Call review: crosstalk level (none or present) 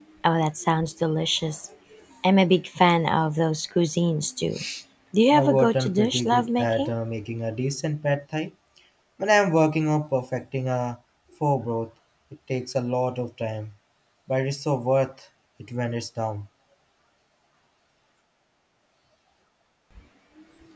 present